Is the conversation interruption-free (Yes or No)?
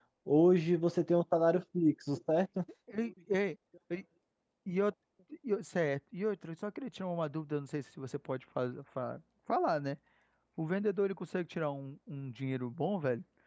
Yes